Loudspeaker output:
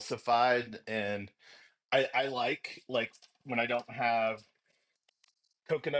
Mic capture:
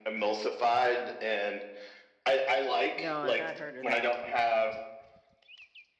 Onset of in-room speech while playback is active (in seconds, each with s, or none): 3.0 s